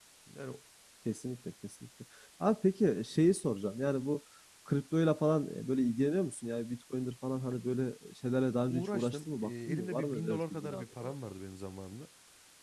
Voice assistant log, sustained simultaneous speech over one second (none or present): present